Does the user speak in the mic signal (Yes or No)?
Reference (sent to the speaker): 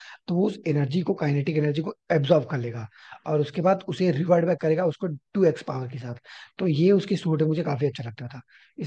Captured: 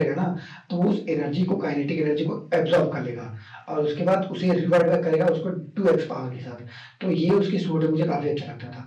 No